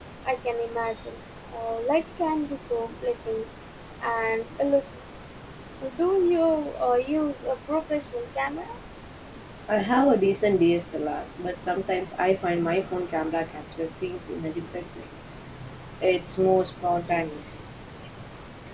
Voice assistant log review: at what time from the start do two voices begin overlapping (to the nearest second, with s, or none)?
none